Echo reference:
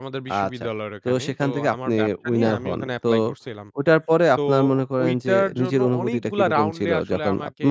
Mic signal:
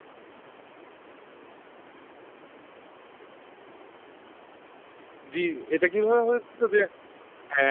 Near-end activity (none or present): present